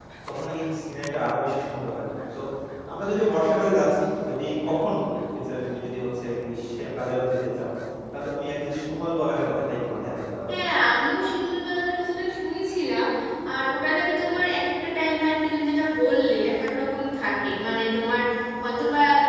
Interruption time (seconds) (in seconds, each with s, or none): none